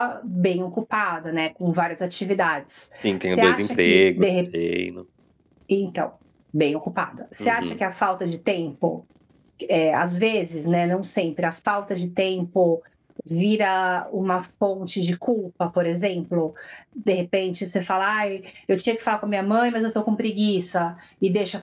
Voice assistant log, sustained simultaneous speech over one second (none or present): present